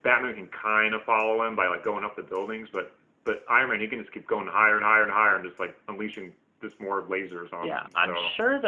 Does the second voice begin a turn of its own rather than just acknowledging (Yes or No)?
Yes